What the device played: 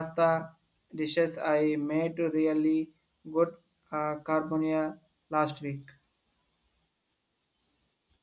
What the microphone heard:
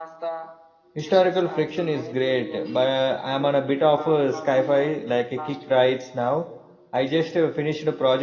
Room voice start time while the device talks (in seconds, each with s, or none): 1.0 s